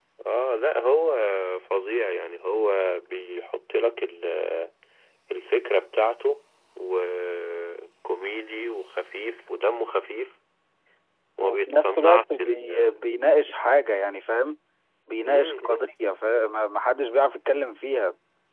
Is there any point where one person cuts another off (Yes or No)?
Yes